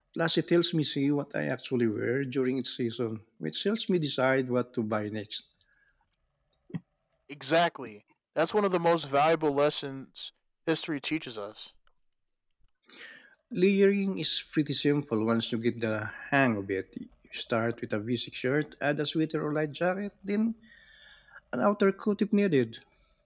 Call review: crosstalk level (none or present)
none